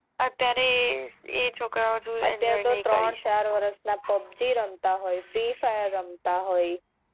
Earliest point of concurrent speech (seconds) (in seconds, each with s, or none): 2.3 s